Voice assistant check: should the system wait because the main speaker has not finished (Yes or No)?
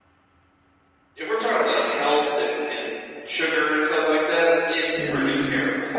No